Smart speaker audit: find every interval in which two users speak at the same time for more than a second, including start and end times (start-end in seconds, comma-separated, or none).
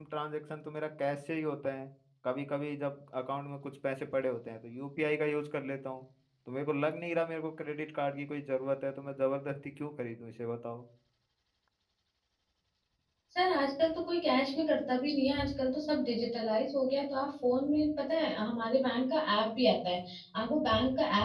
none